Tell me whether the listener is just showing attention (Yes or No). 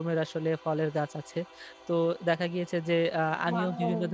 Yes